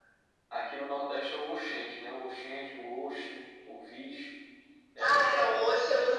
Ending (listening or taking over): taking over